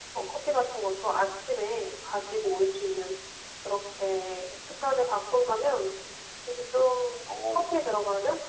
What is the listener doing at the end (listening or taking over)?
listening